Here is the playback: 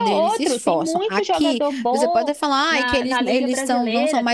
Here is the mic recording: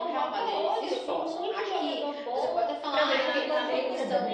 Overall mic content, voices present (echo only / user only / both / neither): both